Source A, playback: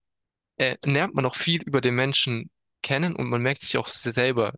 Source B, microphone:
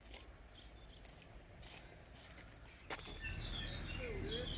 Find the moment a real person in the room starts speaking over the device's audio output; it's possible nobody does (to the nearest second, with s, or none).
none